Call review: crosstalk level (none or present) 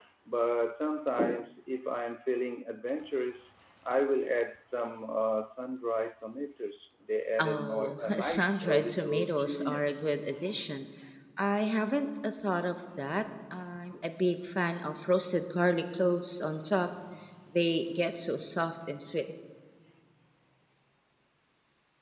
present